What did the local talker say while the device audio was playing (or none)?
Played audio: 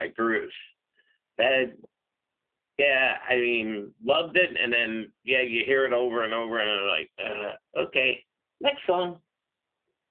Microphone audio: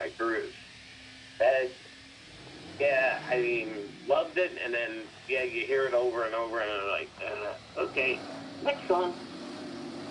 none